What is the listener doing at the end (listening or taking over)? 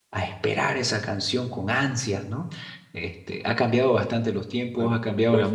taking over